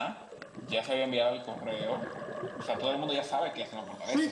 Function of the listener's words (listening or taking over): taking over